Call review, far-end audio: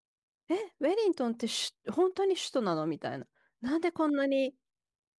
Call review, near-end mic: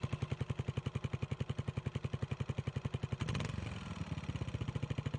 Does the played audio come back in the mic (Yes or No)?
No